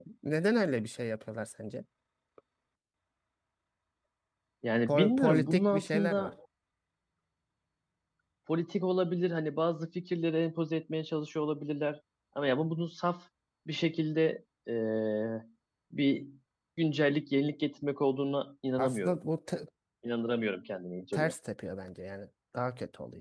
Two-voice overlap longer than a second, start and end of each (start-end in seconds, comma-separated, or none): 4.9-6.3